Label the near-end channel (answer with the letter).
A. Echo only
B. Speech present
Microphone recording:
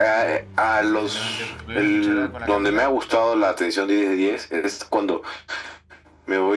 B